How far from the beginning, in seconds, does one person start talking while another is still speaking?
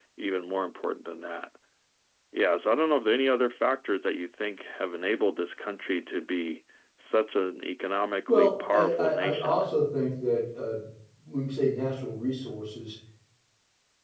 8.3 s

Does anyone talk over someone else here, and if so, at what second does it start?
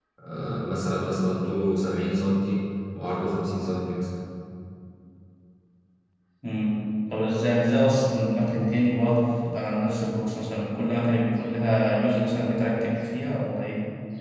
none

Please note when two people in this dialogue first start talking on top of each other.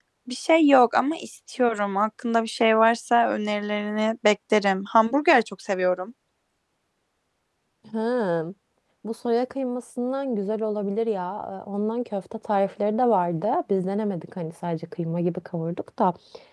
none

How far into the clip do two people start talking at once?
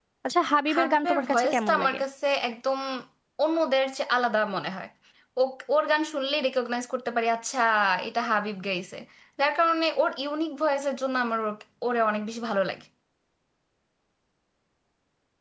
0.7 s

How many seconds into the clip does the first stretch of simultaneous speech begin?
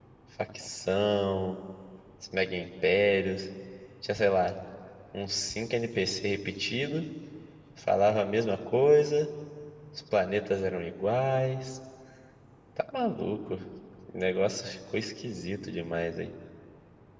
none

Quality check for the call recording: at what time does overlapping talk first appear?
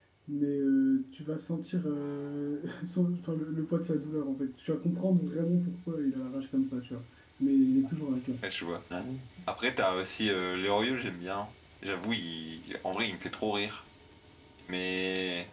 none

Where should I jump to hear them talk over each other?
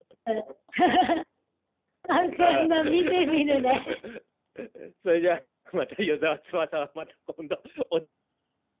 2.4 s

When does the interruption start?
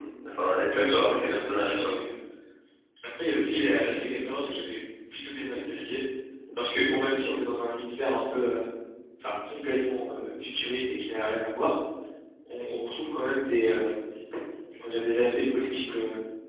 0.7 s

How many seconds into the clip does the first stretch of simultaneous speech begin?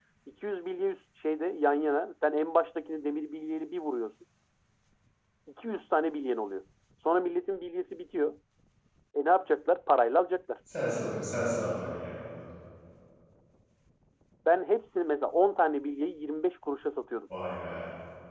none

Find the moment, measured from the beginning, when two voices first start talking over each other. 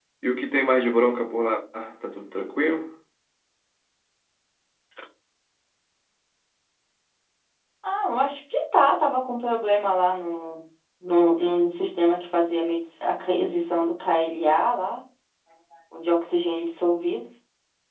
none

